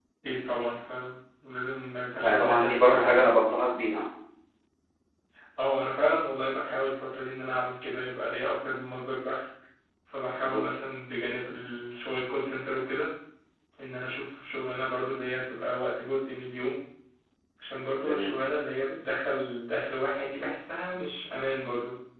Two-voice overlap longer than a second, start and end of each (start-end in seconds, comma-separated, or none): 2.2-3.5